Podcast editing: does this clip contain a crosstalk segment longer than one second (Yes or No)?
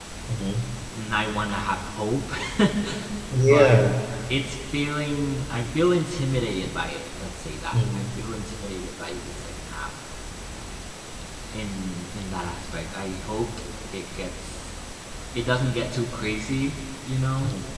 No